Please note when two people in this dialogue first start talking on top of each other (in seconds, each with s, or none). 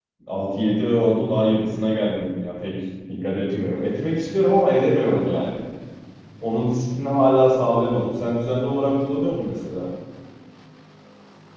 none